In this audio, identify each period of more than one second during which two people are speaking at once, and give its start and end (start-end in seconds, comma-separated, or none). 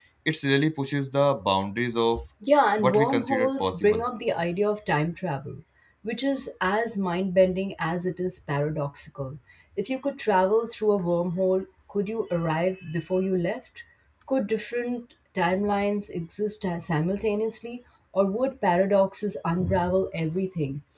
2.8-4.0